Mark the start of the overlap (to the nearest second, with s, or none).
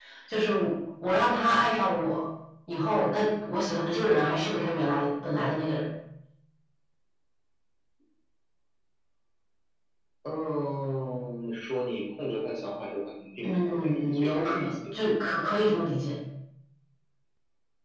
13 s